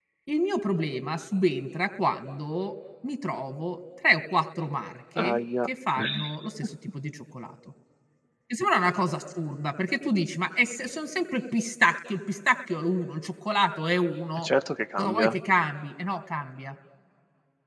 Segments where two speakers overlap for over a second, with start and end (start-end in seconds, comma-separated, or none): none